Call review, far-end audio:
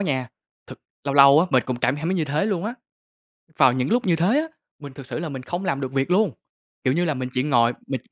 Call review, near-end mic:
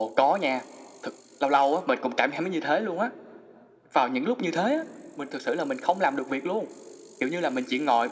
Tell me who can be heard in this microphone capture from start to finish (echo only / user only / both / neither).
echo only